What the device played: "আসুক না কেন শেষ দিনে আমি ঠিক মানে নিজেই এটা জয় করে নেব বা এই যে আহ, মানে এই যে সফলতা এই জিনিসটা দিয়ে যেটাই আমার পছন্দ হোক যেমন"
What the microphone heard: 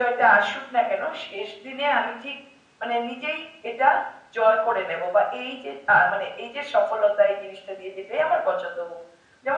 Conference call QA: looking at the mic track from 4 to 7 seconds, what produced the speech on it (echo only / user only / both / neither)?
echo only